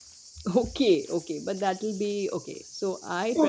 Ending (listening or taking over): taking over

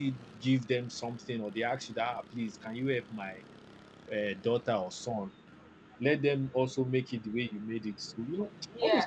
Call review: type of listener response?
taking over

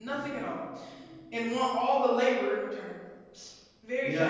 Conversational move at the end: taking over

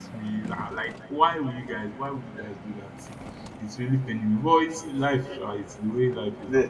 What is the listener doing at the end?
taking over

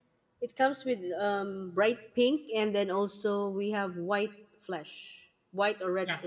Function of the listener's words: taking over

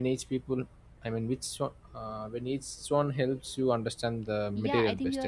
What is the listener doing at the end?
taking over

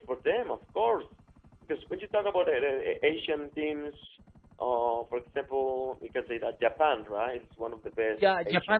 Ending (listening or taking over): taking over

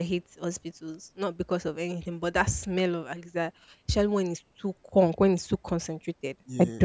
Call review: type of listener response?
taking over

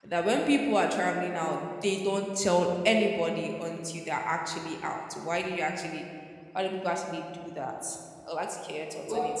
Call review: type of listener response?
taking over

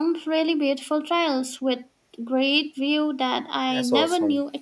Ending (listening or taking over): taking over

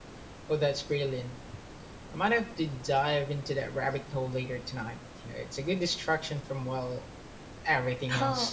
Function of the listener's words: taking over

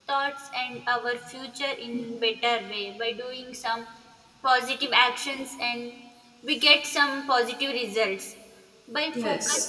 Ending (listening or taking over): listening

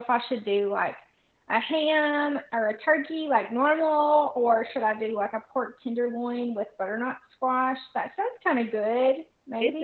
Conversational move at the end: taking over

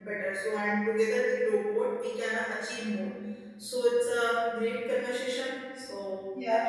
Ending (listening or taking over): taking over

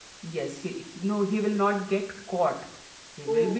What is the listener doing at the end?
listening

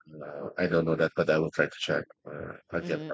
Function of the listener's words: taking over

